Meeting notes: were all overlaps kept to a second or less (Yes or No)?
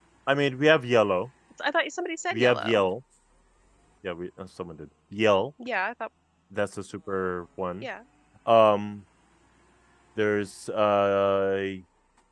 Yes